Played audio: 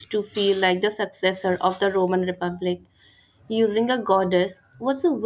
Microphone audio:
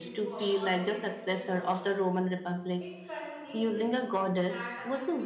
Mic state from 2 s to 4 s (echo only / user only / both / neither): both